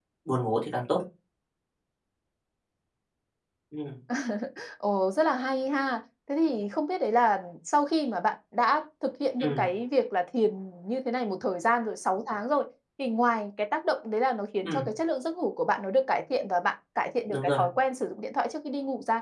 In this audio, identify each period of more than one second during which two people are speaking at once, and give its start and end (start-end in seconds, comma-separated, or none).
none